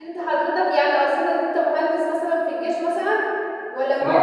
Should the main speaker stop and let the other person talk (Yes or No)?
No